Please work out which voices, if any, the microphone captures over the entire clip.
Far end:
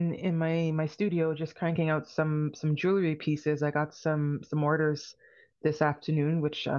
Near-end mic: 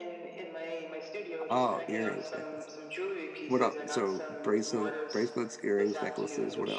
both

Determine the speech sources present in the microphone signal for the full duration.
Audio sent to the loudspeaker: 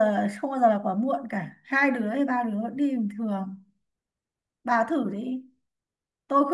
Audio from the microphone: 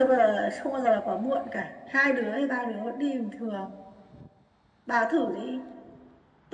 echo only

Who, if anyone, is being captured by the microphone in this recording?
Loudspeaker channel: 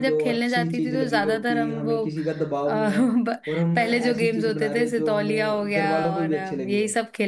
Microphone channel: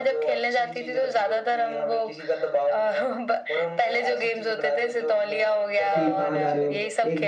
both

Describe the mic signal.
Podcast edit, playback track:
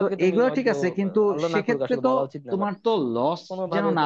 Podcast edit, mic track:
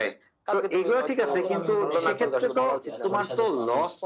both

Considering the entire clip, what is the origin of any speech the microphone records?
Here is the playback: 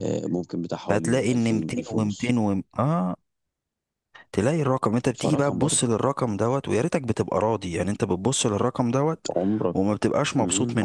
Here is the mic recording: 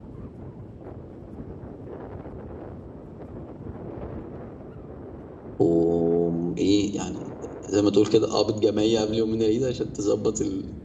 user only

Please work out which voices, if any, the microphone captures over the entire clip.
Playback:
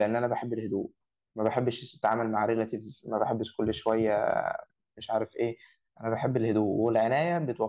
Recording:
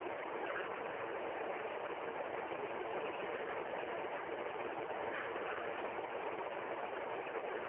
neither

